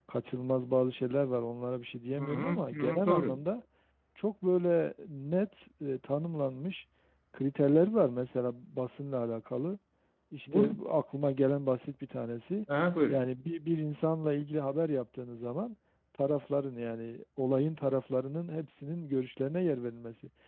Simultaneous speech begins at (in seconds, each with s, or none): 2.2 s